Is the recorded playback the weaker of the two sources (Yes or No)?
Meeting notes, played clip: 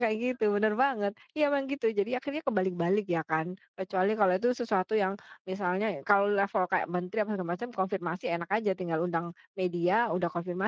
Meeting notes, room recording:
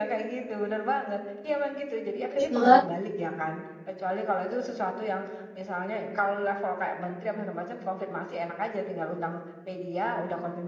Yes